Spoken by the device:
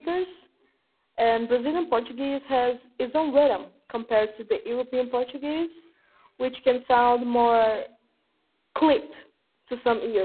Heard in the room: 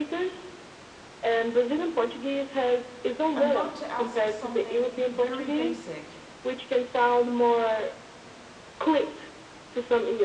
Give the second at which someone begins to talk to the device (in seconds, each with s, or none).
3.4 s